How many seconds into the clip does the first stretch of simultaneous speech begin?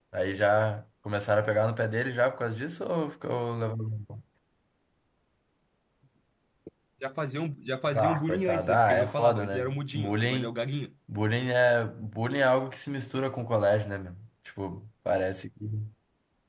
7.9 s

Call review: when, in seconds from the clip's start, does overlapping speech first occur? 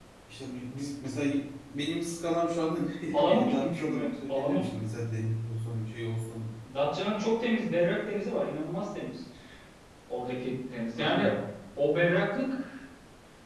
3.1 s

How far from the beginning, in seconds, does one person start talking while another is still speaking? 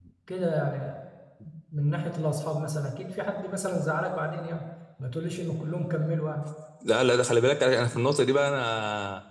none

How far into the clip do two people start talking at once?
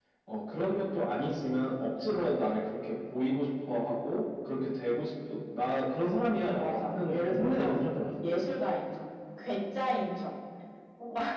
6.6 s

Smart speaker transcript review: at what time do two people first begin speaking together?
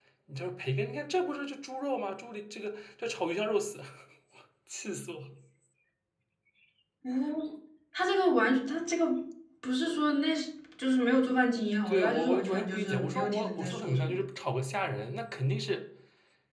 11.8 s

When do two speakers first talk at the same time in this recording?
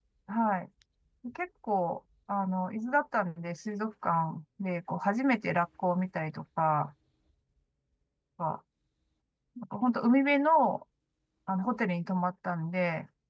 none

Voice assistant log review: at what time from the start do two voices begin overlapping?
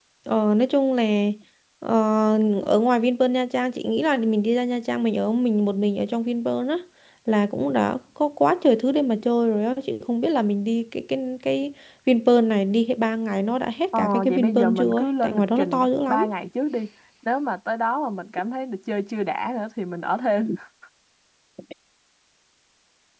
13.9 s

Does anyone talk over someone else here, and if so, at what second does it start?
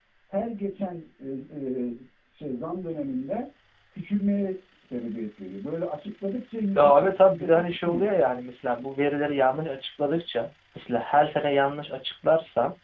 6.8 s

